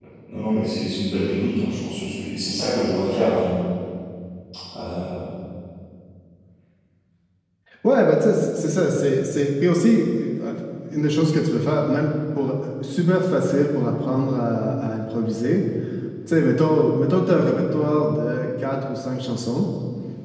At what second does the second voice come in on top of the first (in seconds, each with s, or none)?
none